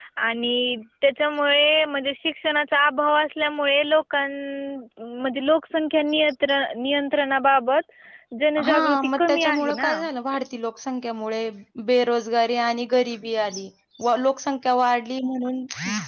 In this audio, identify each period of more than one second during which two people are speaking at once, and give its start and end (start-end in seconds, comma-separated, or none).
8.7-9.9